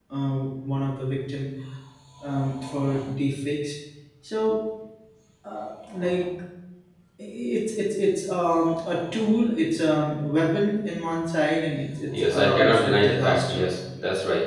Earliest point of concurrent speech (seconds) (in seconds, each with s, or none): 12.1 s